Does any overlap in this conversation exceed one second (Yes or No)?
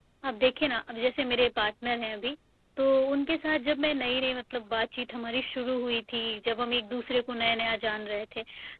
No